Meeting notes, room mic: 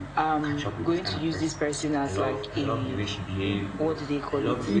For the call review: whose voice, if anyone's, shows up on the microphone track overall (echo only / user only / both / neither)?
both